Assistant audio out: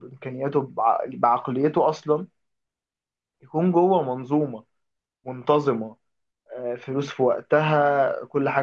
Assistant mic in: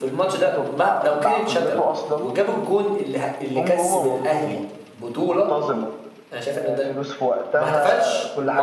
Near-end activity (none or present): present